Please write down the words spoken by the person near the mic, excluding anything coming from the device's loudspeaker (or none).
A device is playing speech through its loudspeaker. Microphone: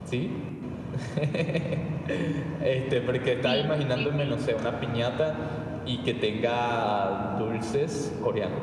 Sí, sí, sí,